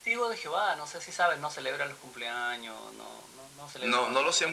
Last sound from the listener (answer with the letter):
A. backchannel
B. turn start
B